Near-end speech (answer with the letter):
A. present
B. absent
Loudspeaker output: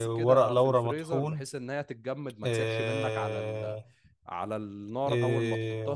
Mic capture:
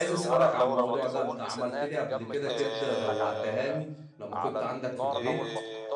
A